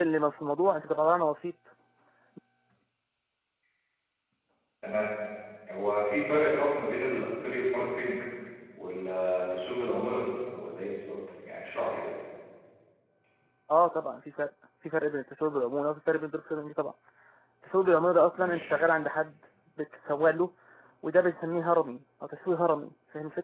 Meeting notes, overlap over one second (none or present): none